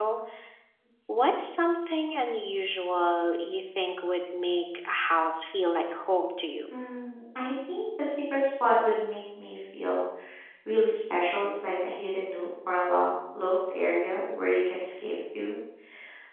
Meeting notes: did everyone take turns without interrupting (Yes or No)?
Yes